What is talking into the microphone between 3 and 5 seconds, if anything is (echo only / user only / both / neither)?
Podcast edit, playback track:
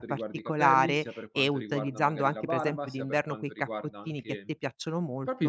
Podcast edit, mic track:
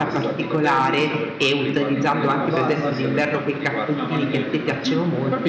both